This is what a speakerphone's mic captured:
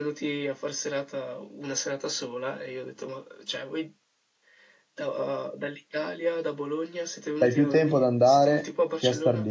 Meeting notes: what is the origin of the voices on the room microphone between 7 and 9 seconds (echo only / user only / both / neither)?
both